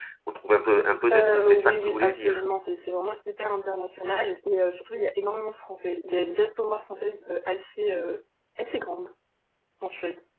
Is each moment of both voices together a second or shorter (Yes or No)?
No